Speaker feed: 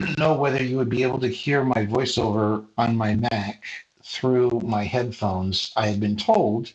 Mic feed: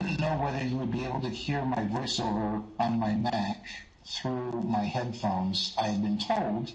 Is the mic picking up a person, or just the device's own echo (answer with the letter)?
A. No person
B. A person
A